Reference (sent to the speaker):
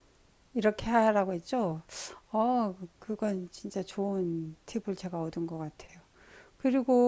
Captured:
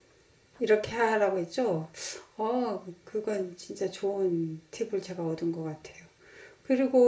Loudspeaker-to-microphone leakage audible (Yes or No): Yes